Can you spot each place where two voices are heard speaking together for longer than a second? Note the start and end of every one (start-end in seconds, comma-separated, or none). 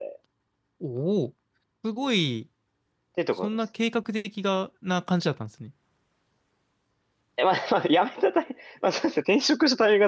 none